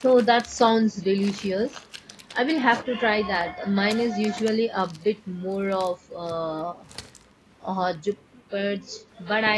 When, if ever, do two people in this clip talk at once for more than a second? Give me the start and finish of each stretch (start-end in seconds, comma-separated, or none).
none